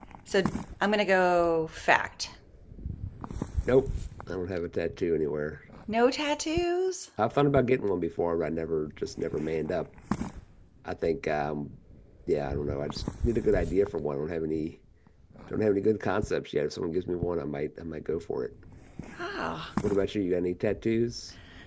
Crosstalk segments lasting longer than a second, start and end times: none

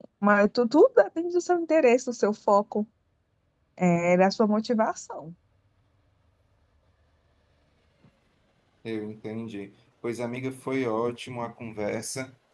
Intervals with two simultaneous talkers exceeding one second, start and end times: none

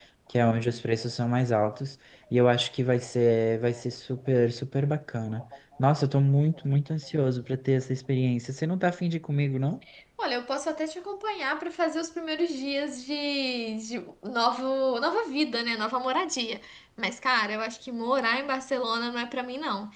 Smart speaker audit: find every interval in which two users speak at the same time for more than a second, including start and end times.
none

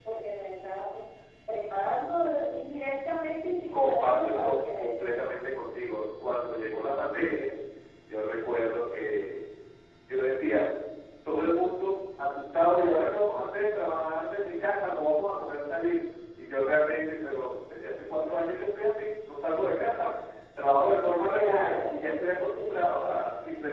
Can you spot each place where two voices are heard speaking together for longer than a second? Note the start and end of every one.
3.7-5.3

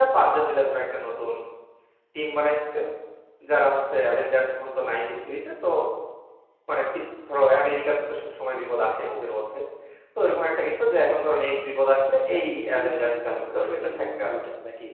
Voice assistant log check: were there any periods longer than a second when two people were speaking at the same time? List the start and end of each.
12.2-14.4

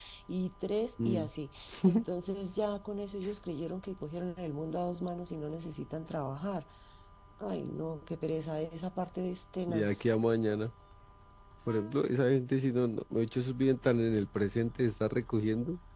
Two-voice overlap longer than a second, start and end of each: none

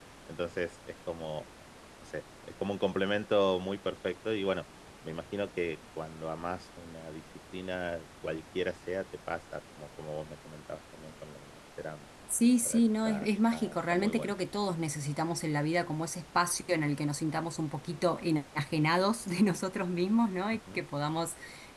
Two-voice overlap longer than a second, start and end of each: 12.6-14.3

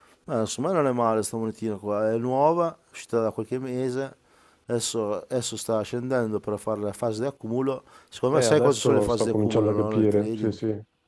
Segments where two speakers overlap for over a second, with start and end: 8.3-10.6

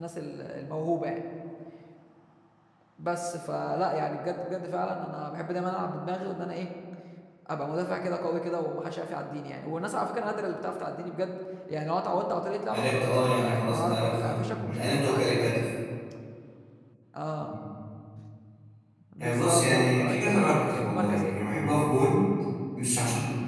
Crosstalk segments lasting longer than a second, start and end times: 12.7-15.6, 19.2-21.4

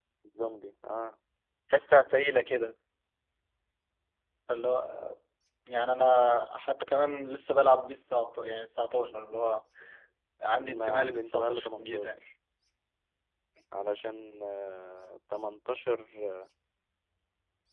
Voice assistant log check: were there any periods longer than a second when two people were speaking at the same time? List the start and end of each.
10.6-12.2

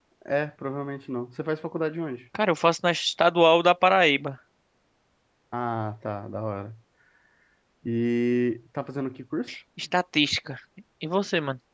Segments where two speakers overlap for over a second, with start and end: none

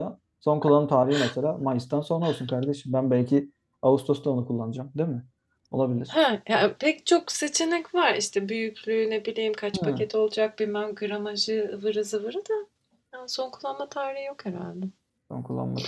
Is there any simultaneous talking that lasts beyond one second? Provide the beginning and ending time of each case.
none

